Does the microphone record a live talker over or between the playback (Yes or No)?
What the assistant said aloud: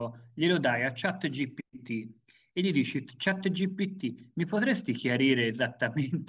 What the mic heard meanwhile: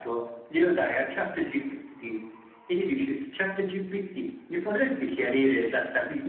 No